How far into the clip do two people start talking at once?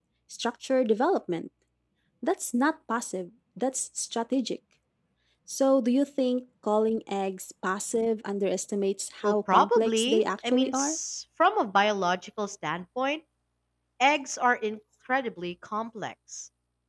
9 s

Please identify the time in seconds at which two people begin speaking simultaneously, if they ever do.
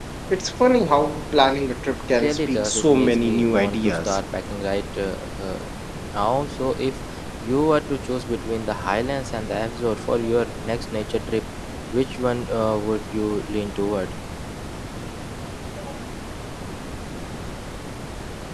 2 s

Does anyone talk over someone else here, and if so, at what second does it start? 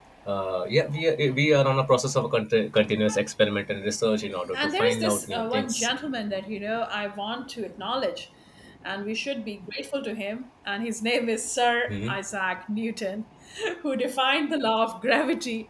5 s

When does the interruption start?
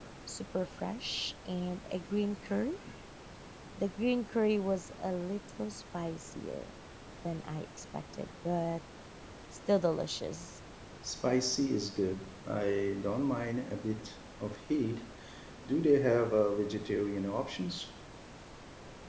none

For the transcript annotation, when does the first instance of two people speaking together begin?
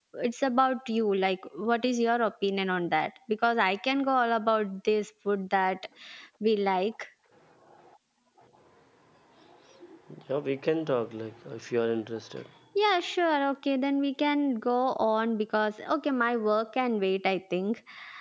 none

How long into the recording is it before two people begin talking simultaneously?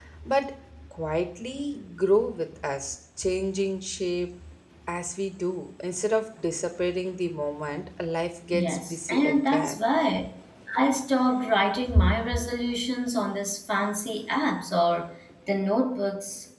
9 s

